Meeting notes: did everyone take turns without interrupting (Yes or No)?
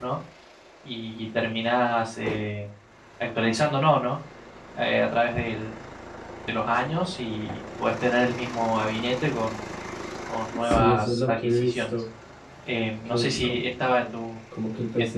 No